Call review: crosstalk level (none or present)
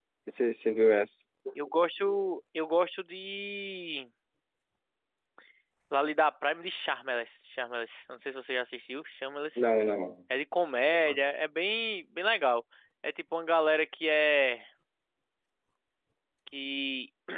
none